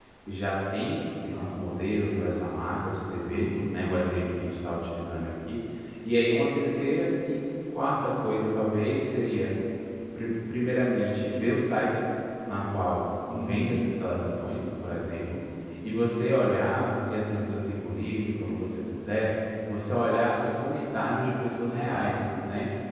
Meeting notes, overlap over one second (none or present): none